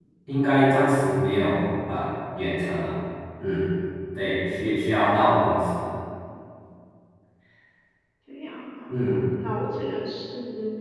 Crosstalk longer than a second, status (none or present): none